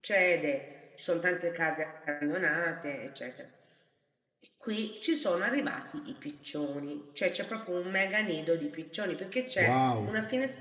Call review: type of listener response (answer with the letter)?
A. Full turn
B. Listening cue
B